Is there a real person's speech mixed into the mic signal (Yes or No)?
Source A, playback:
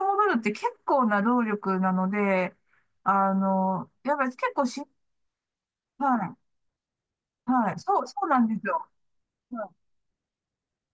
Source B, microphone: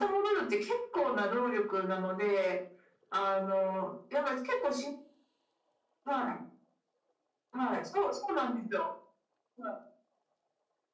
No